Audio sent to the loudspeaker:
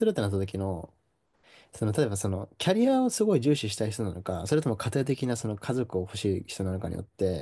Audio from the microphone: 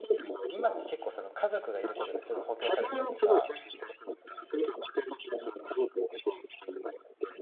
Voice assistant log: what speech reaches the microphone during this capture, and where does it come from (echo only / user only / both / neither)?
both